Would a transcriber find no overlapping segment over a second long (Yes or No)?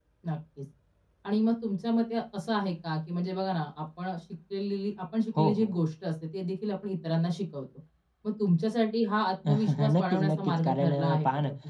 No